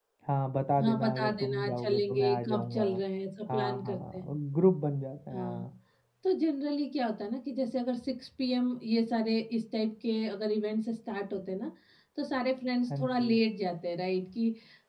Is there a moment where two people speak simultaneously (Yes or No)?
Yes